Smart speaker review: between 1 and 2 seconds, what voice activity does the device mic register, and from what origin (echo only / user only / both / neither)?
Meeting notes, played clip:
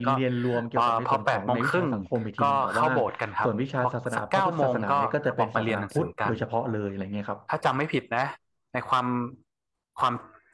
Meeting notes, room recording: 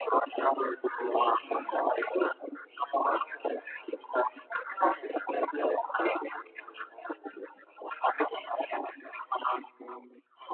both